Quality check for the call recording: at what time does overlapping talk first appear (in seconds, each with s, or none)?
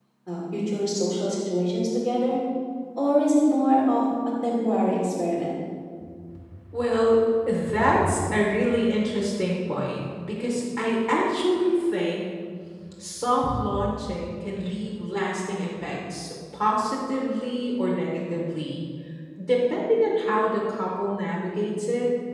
none